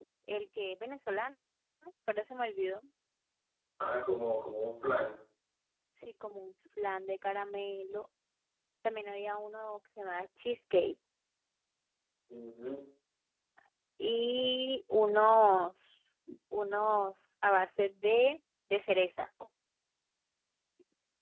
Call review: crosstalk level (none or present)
none